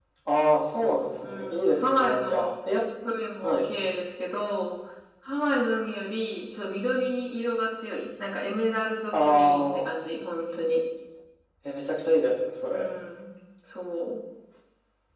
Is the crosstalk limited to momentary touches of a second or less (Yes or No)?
No